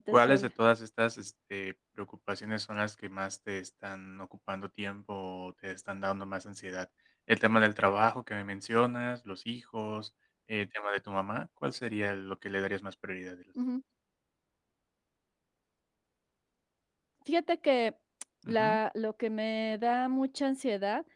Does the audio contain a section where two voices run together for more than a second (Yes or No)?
No